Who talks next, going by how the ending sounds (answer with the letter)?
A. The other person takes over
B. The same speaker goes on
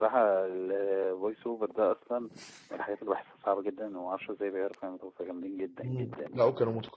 A